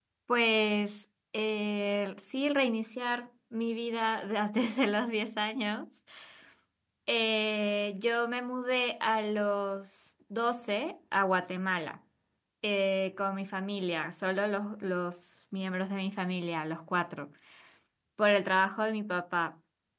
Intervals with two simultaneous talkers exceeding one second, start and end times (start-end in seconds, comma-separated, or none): none